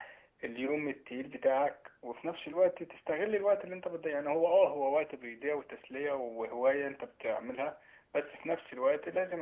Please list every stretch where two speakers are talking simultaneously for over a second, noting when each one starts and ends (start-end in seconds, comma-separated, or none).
none